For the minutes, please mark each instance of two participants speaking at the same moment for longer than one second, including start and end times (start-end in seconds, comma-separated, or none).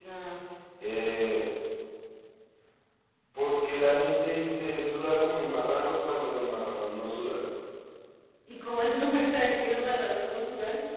none